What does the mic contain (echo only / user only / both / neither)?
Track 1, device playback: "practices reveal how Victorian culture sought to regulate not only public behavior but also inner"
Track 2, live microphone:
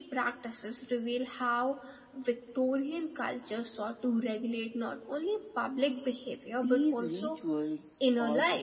both